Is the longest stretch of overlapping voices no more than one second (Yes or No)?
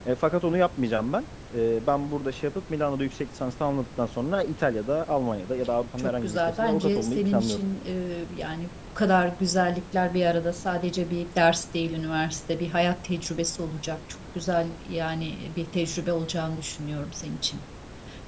No